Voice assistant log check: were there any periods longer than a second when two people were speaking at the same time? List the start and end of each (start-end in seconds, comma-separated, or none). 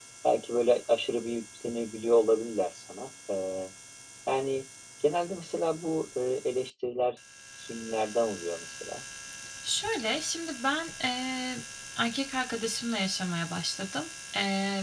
none